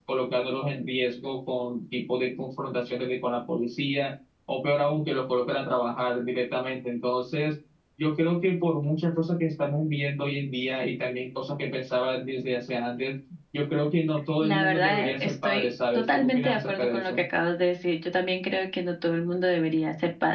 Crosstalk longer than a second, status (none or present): present